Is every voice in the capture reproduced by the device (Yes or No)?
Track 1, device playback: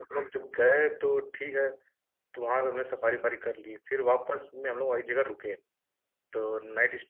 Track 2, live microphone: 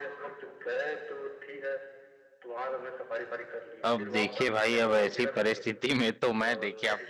No